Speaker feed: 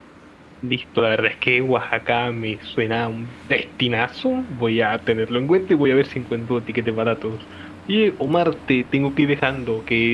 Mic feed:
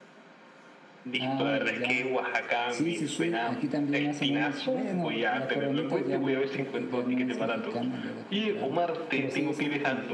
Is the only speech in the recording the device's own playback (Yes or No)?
No